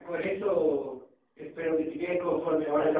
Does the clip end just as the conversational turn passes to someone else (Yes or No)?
Yes